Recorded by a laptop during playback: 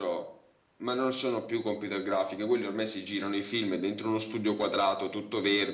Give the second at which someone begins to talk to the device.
none

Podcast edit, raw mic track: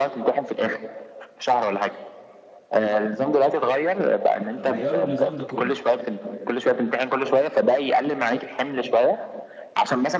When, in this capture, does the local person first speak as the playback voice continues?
5 s

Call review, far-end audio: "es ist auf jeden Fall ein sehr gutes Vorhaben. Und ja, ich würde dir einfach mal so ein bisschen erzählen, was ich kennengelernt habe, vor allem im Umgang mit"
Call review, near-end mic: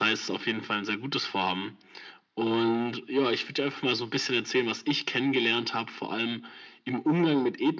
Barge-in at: none

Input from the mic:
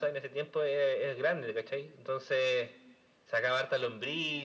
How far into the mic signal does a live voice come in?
none

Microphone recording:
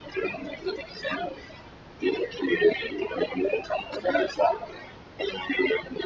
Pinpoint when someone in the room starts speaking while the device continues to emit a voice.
none

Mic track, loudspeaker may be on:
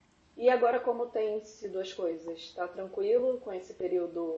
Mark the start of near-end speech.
0 s

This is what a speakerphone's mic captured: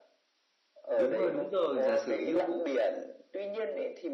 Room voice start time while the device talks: 1 s

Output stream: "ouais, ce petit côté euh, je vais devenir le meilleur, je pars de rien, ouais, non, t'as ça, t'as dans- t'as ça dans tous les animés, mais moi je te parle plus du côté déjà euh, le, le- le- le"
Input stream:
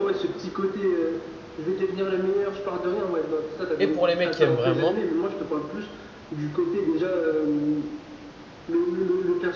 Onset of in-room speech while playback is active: 4 s

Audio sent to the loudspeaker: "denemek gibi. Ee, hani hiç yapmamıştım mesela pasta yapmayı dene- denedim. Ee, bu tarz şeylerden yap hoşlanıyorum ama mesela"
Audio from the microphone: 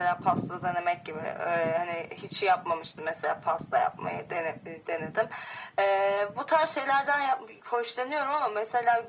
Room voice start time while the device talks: none

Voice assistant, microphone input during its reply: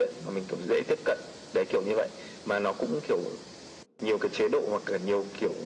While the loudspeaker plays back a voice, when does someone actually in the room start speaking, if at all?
none

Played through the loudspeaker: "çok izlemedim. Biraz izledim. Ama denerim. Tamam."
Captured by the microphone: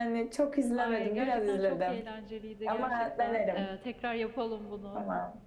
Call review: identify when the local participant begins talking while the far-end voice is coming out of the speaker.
1 s

